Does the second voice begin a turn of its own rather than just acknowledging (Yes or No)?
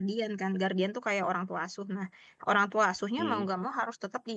No